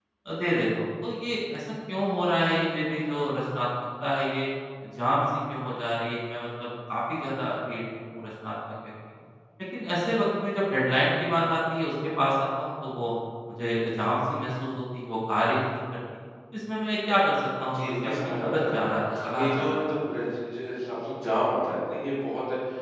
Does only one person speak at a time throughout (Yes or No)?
No